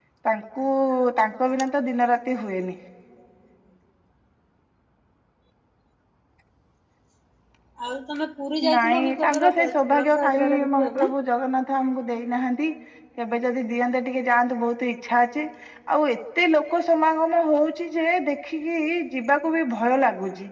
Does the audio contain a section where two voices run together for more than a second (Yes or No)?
Yes